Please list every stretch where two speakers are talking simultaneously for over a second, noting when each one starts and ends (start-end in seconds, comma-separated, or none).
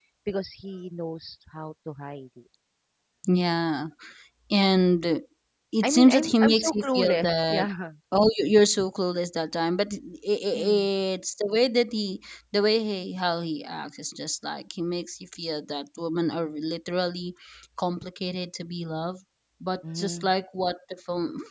5.8-7.7